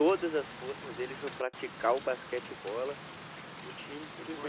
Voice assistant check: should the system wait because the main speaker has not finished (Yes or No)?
Yes